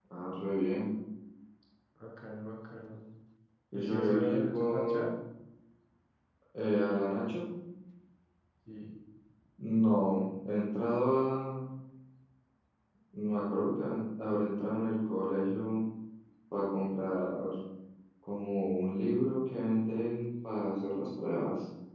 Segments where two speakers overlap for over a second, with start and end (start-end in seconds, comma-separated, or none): 3.7-5.1